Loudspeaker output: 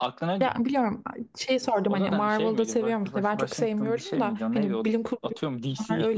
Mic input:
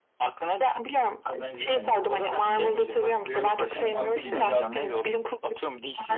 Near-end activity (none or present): present